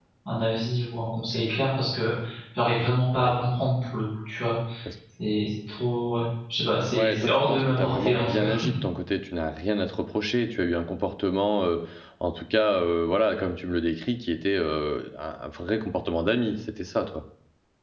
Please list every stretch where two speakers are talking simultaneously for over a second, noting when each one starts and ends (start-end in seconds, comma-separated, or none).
6.9-8.5